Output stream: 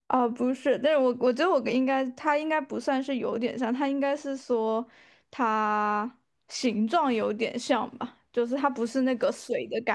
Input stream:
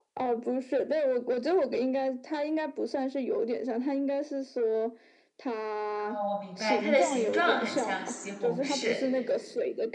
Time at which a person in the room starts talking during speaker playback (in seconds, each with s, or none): 6.0 s